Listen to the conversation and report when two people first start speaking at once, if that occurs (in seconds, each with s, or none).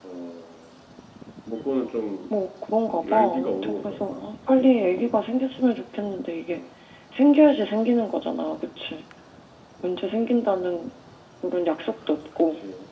2.9 s